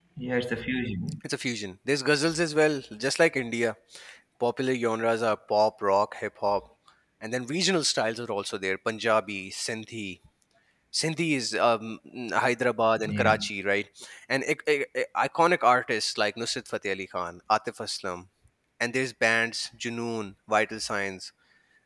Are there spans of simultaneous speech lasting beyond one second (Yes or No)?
No